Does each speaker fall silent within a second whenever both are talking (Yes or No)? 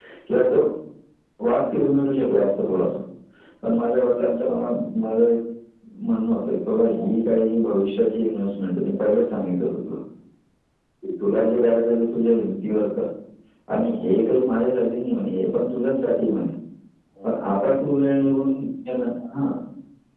Yes